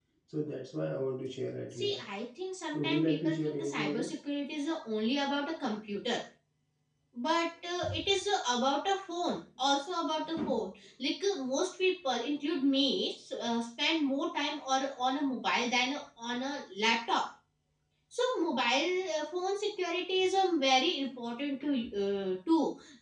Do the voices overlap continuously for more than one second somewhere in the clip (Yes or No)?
Yes